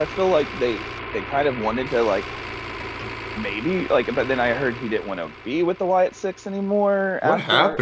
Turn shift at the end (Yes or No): Yes